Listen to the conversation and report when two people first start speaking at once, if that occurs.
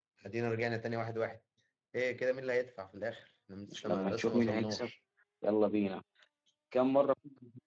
3.7 s

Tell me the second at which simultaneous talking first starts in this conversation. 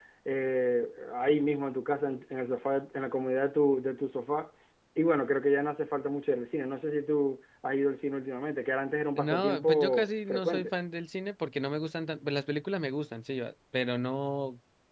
9.2 s

